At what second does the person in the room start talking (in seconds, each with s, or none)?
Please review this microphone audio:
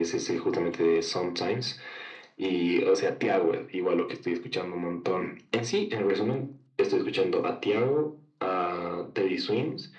none